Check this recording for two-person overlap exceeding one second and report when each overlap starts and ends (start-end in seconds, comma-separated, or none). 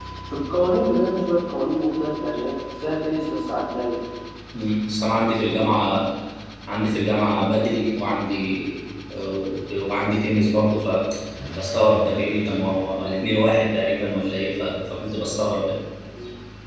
none